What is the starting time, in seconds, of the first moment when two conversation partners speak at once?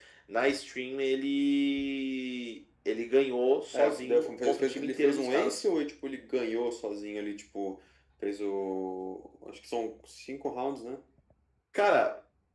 3.7 s

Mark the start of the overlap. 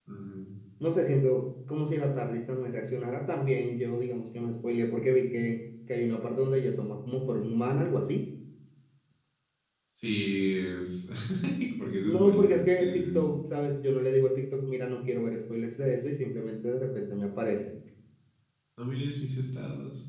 12.0 s

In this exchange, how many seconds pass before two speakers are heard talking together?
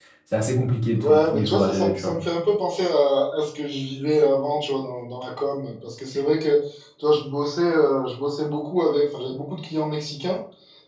1.0 s

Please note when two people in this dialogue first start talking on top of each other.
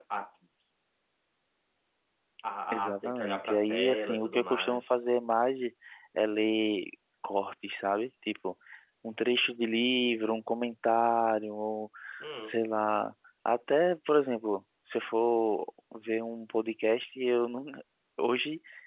2.7 s

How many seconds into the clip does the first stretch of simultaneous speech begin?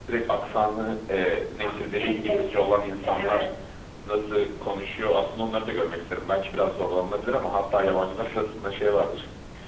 1.6 s

